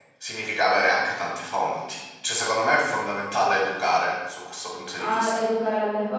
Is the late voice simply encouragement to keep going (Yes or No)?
No